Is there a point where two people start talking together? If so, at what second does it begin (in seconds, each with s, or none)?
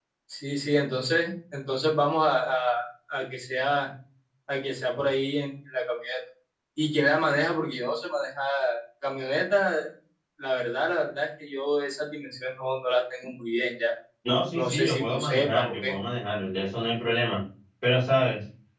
14.5 s